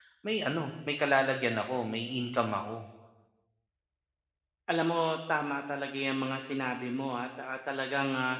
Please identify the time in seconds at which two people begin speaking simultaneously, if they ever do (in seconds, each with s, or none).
none